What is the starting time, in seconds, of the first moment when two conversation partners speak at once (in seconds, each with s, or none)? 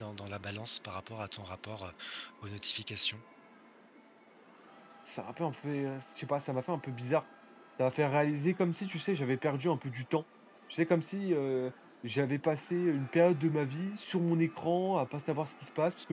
none